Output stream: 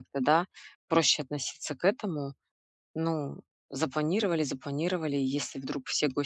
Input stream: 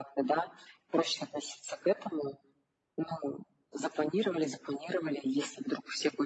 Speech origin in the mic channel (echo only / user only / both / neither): echo only